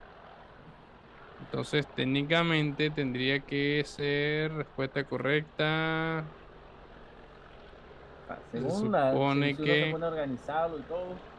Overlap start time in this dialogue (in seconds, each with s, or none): 8.5 s